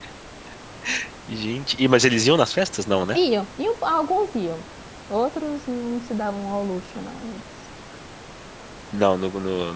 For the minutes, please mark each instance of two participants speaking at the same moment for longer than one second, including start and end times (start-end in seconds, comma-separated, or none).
none